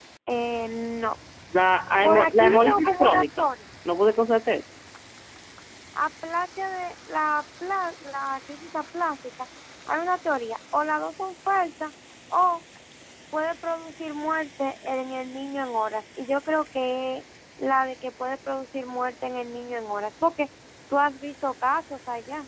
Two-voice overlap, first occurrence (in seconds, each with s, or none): 2.0 s